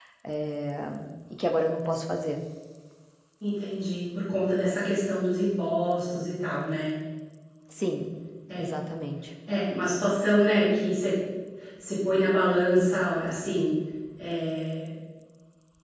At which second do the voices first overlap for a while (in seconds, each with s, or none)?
none